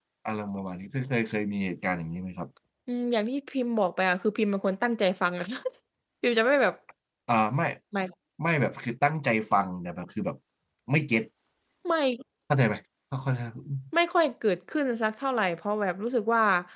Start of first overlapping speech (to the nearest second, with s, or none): none